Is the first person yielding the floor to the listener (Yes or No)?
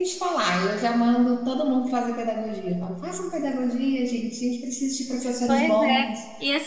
Yes